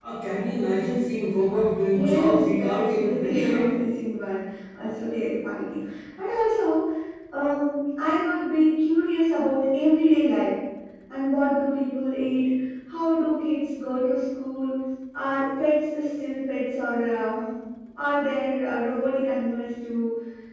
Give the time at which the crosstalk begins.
1.9 s

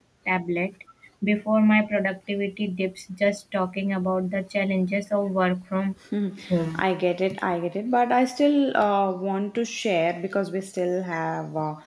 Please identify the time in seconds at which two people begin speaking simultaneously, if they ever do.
none

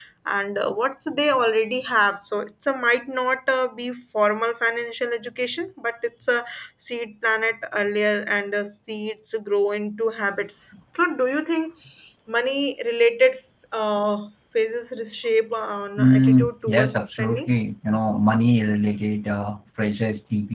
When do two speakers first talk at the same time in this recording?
16.0 s

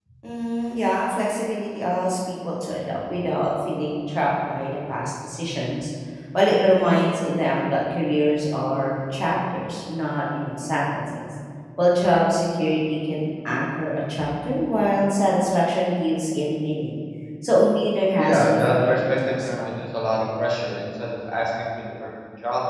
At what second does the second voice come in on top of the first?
18.2 s

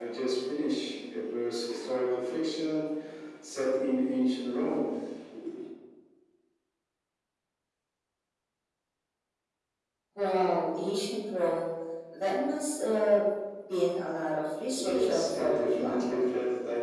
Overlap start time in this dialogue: 14.8 s

